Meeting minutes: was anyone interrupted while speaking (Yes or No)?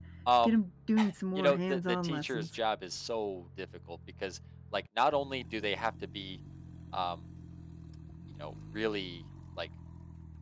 Yes